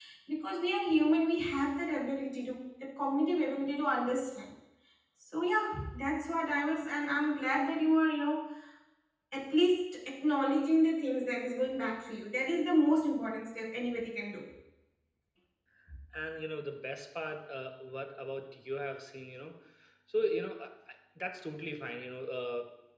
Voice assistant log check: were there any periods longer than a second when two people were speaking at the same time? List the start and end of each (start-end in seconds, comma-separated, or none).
none